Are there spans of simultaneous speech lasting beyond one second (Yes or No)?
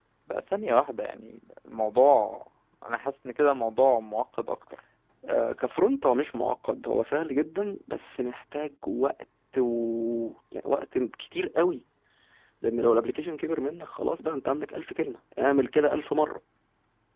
No